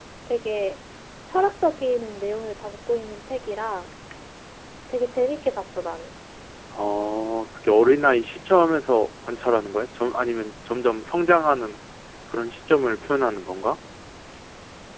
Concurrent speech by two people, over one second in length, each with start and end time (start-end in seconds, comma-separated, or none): none